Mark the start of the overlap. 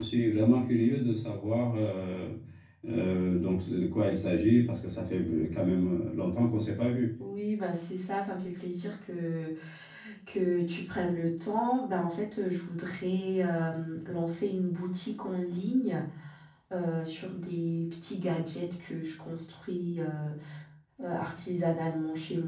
none

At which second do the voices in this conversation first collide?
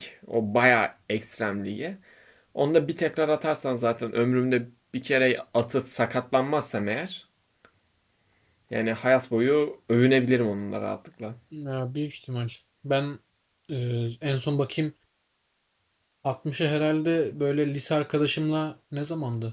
none

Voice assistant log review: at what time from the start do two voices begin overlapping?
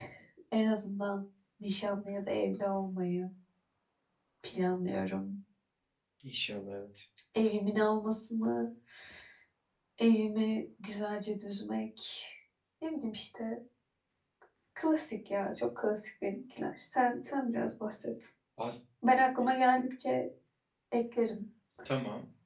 none

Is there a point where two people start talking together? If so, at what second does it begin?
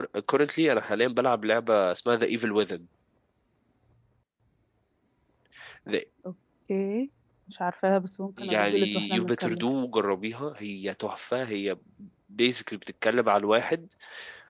8.4 s

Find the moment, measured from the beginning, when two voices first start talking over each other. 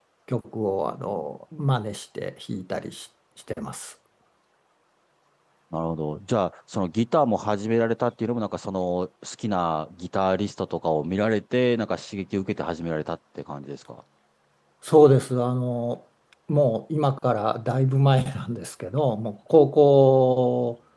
none

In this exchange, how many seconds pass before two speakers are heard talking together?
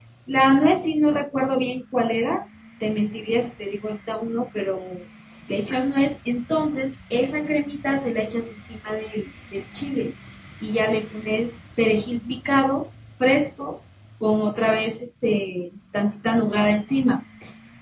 none

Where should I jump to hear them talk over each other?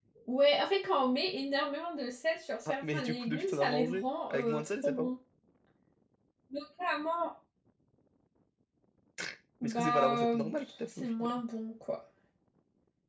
2.6 s

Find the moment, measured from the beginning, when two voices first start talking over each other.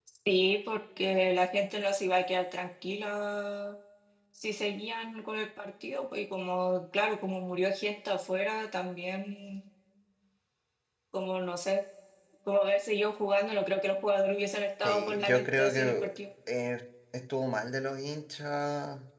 14.8 s

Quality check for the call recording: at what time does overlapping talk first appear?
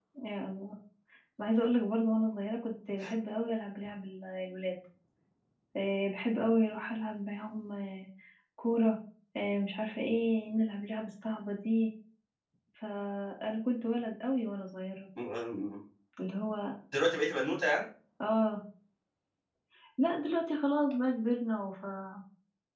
none

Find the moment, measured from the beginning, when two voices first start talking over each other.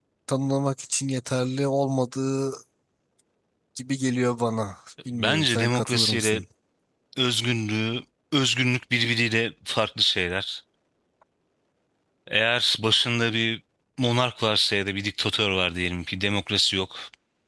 5.2 s

